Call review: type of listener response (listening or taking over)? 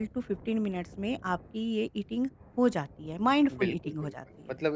taking over